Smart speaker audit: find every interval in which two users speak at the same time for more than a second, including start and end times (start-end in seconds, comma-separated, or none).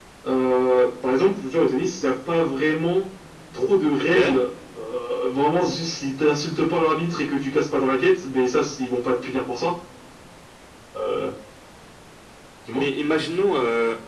none